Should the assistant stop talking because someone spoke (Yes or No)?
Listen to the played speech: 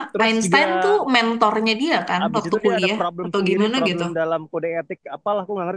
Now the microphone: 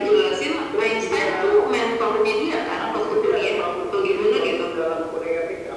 No